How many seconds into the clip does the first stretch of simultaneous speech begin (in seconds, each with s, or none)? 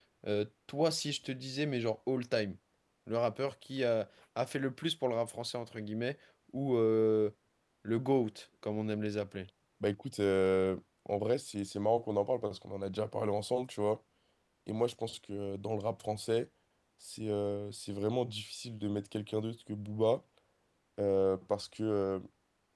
none